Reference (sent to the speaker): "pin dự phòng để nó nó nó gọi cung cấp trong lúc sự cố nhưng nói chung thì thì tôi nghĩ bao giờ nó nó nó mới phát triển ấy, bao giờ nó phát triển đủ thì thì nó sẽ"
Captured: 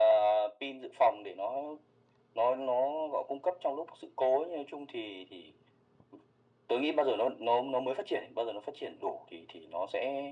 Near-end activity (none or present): none